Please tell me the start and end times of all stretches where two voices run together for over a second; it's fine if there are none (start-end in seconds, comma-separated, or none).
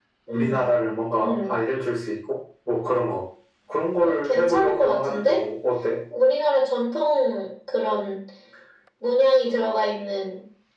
4.0-5.4